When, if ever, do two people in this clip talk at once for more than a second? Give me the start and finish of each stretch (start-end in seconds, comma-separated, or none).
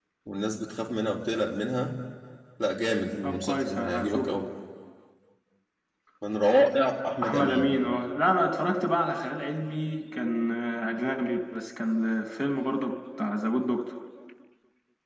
3.2-4.4